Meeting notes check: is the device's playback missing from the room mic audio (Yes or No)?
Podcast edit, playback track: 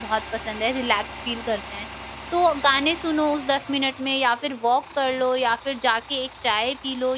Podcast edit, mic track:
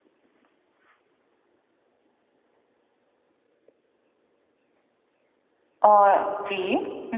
Yes